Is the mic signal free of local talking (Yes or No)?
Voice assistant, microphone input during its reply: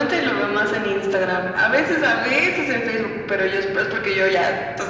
Yes